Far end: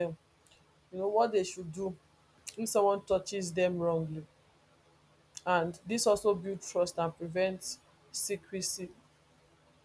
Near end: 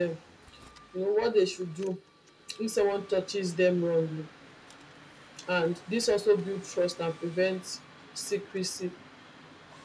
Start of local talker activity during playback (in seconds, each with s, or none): none